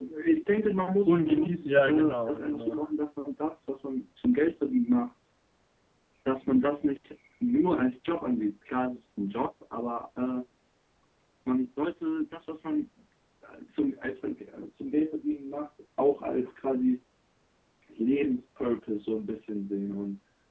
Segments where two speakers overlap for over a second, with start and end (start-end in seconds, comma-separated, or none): 1.1-2.8